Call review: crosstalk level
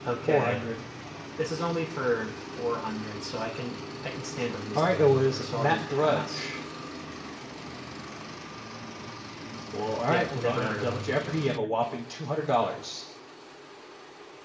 present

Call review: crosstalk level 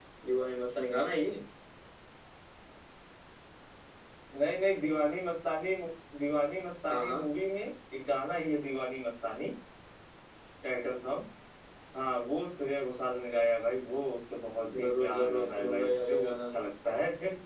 present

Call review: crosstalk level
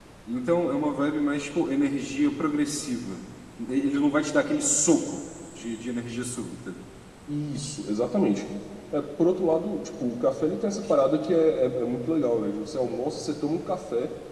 none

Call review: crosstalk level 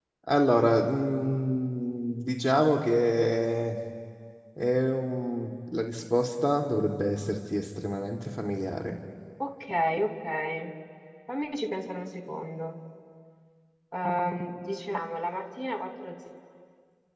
none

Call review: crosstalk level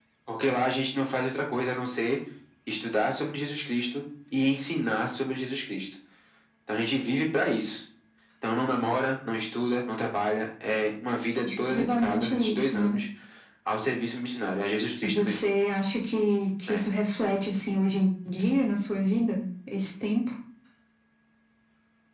present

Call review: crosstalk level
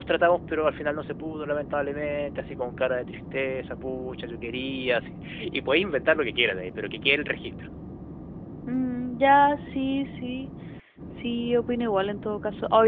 none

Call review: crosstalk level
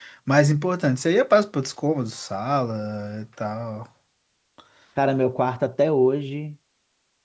none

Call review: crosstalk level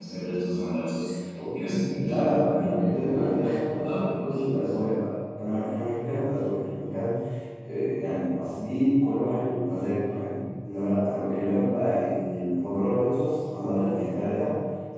present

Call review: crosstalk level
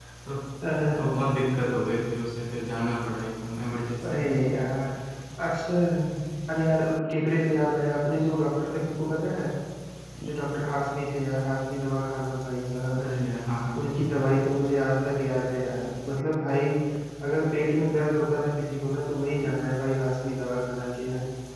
none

